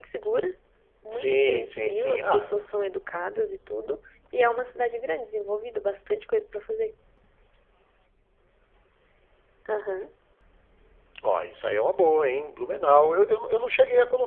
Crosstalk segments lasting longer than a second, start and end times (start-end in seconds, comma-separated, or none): 1.1-2.5